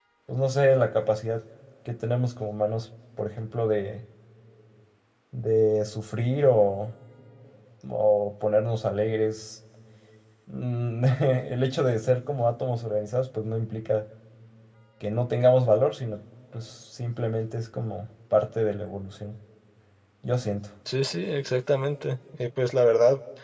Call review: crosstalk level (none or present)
none